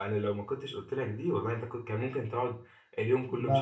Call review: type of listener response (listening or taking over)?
taking over